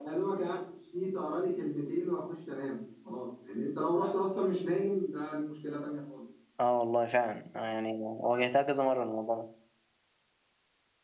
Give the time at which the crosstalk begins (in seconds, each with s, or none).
none